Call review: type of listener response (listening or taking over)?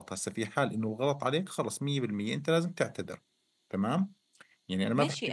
taking over